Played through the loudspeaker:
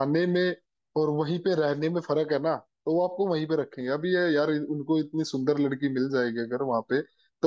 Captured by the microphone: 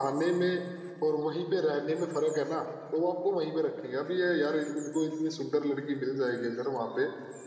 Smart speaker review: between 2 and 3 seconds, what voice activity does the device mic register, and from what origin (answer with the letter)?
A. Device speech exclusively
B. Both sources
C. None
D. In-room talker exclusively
A